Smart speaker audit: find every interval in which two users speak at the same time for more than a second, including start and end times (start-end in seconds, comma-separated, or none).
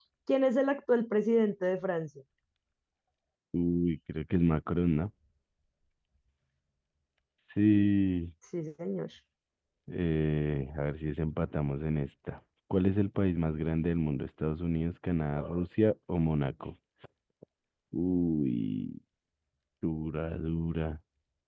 none